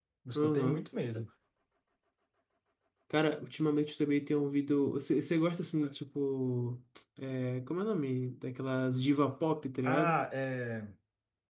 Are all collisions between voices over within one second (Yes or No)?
Yes